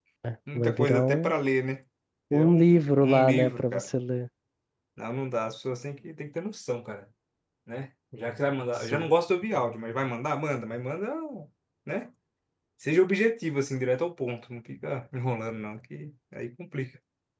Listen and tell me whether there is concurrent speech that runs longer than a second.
Yes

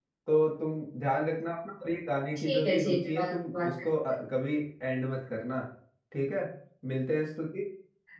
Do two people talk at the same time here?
Yes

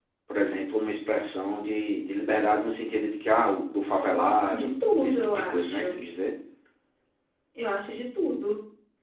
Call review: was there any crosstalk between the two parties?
Yes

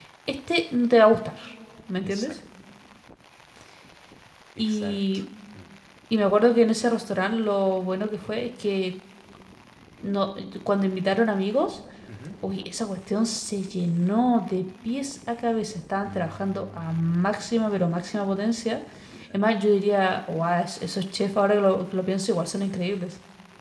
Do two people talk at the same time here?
Yes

